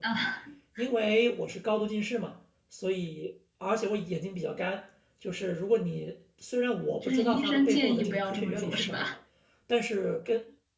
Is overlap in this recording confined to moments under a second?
No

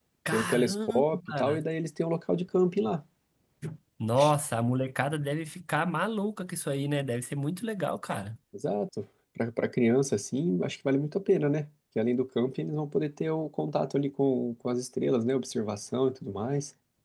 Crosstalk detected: Yes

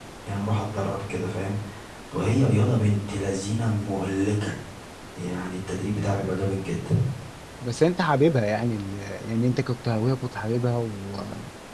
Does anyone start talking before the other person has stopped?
No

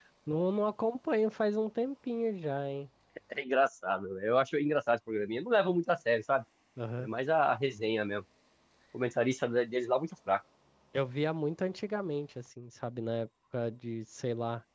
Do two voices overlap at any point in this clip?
No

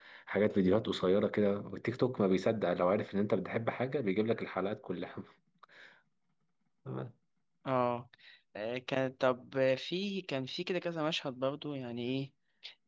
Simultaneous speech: No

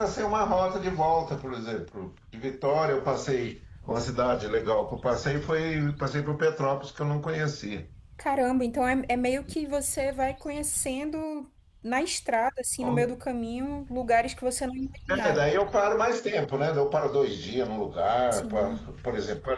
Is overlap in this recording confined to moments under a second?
Yes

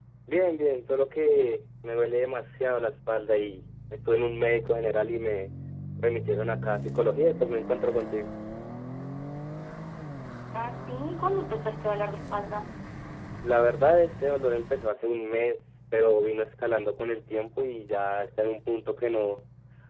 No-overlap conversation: Yes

